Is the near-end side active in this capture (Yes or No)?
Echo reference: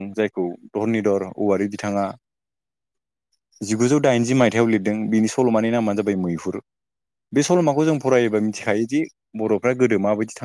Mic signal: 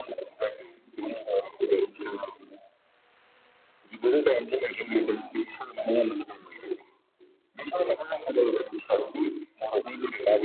No